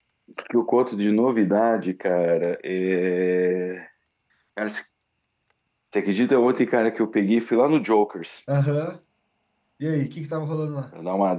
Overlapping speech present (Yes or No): No